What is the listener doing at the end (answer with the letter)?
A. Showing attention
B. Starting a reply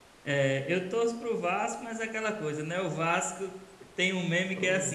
A